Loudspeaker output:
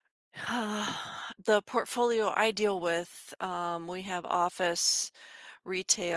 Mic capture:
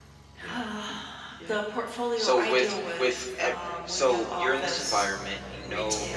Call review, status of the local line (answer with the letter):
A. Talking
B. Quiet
A